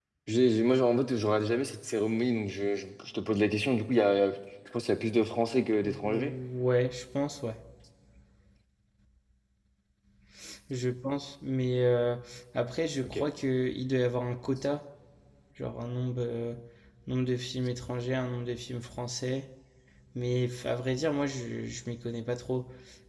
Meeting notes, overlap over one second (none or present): none